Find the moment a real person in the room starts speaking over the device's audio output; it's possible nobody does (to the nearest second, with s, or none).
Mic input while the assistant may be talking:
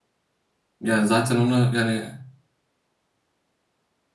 1 s